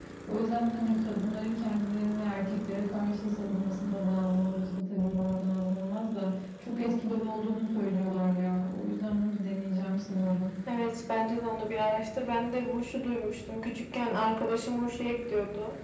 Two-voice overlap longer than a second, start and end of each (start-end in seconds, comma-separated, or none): none